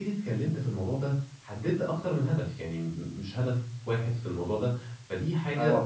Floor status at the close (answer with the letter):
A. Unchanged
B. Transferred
A